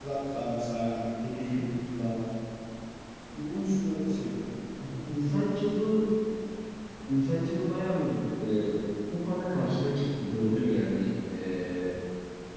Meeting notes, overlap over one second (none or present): none